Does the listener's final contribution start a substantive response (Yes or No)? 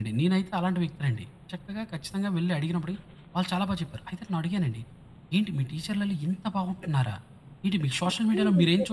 Yes